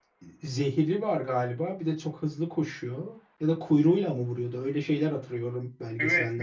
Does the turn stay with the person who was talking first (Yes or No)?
No